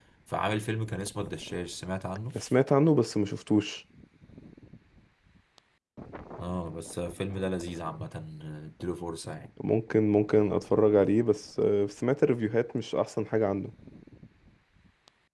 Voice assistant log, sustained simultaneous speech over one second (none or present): none